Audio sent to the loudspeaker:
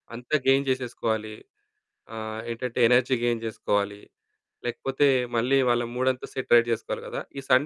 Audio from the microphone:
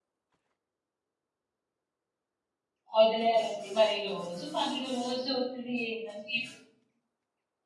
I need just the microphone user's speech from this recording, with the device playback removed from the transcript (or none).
వదిలేయాలండి మరి రోజు పనులు రోజు ఒత్తిడి ఏందండి